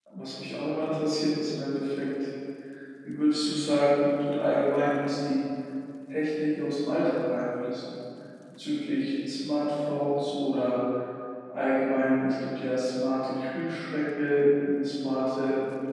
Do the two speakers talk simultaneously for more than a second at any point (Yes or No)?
No